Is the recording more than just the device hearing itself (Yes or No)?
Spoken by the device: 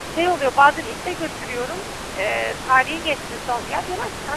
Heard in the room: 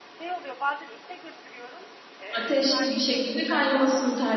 Yes